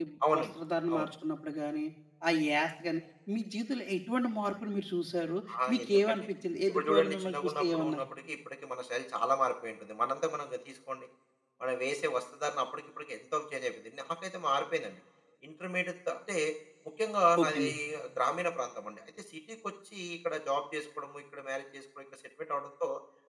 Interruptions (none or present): present